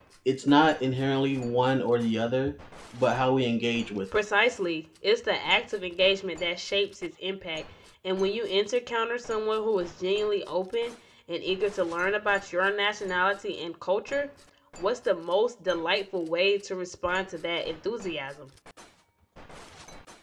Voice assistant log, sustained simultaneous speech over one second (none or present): none